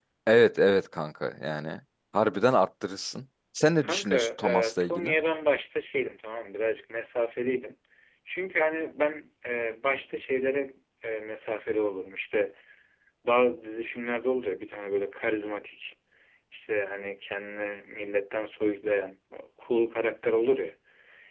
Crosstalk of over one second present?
Yes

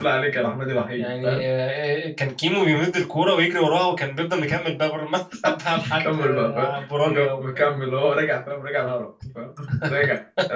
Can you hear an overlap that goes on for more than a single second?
Yes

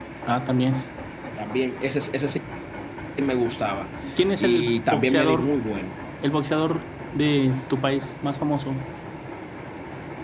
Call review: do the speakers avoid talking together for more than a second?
No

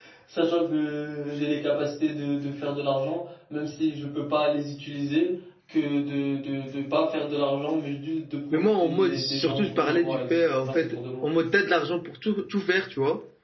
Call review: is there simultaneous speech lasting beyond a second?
Yes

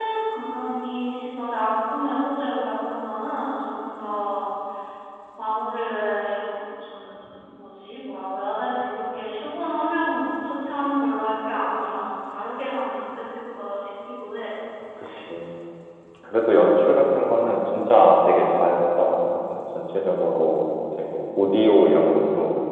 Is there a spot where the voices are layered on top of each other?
No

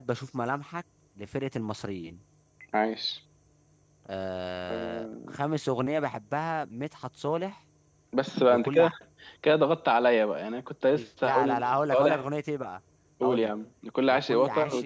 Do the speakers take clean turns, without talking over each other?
No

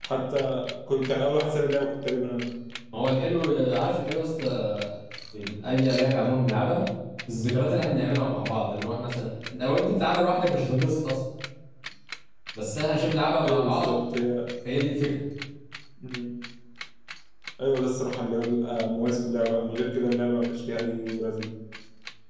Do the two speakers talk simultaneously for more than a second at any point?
No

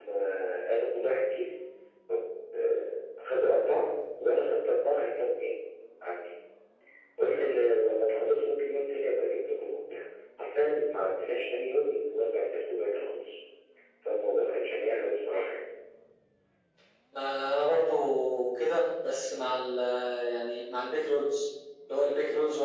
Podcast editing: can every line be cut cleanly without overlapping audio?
Yes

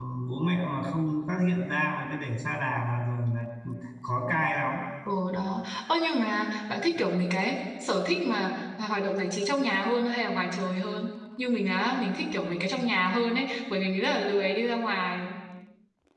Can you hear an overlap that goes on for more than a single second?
No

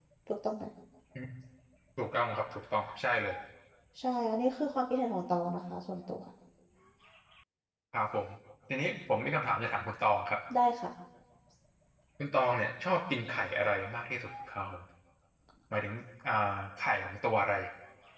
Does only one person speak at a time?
Yes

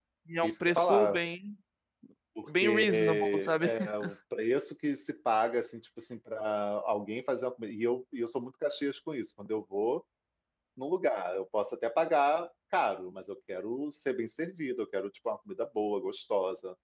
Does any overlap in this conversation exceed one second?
Yes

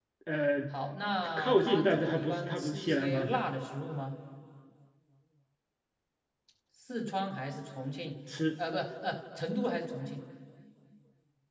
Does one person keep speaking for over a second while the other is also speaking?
Yes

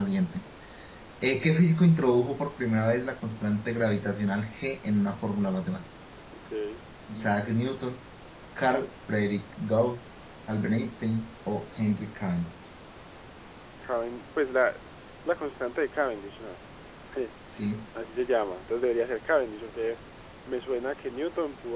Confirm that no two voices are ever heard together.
Yes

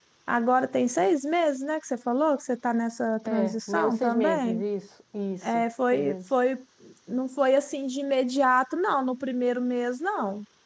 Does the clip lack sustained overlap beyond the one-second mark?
No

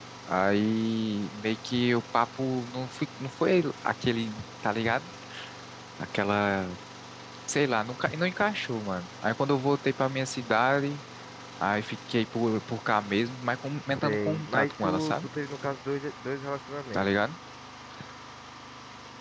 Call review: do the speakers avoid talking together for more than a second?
No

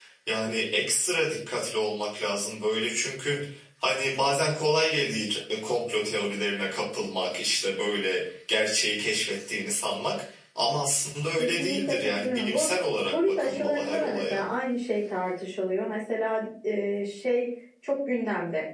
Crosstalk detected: Yes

